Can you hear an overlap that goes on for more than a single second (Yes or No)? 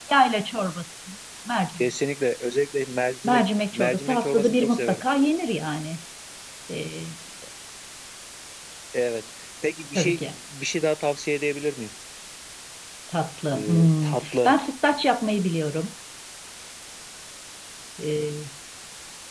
Yes